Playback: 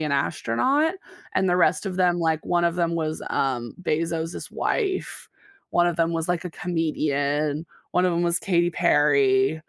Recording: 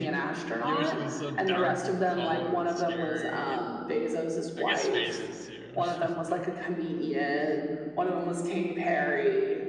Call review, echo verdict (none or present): present